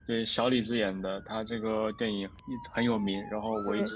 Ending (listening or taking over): listening